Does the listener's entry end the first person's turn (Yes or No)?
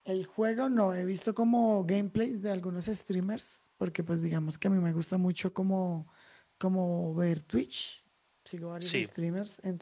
No